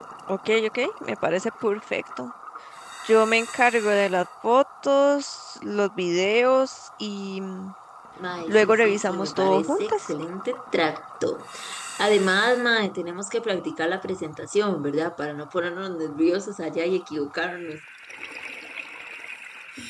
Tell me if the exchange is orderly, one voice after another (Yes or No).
No